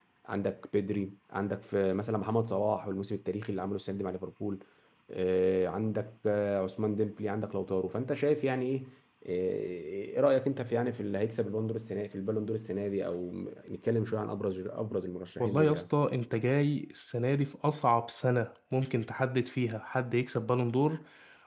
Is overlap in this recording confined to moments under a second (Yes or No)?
Yes